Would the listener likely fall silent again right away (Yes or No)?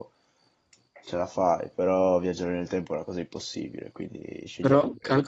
No